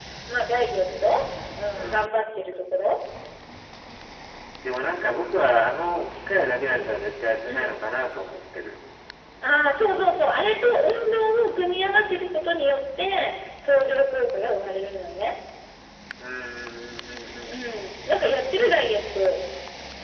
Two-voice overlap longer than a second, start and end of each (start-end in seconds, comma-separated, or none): none